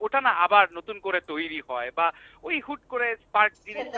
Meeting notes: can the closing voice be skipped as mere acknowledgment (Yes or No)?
No